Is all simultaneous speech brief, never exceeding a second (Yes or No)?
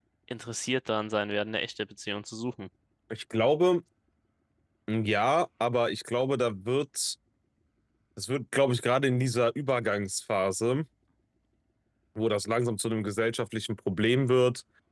Yes